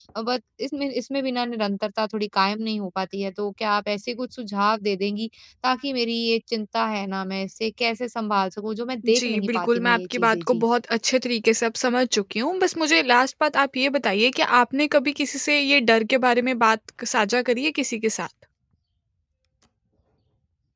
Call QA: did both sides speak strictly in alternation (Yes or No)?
No